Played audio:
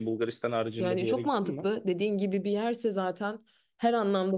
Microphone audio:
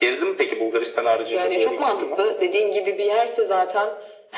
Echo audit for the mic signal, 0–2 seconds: echo only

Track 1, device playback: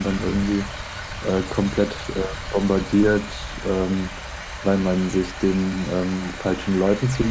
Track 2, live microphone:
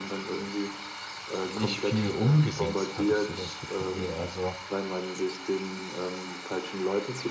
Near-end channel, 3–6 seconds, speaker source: both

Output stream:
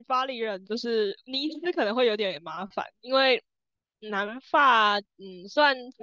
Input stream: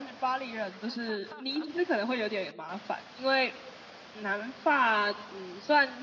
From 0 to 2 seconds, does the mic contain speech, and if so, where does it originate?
echo only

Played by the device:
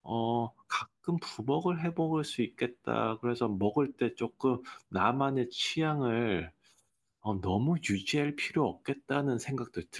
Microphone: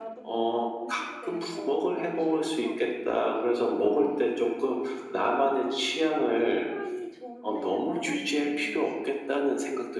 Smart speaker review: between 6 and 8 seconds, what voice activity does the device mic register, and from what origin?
both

